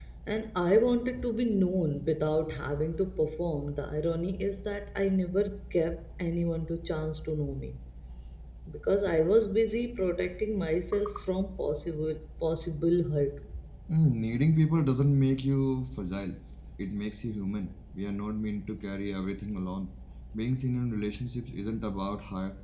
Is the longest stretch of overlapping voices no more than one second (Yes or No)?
Yes